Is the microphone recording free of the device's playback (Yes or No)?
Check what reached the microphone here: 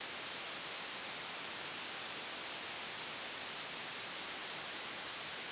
Yes